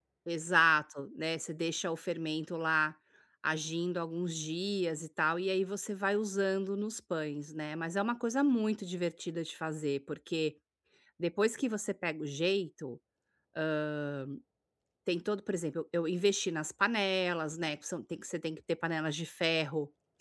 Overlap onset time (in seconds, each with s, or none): none